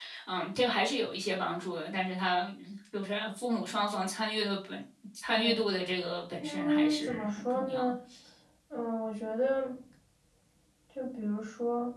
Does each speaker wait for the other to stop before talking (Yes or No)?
No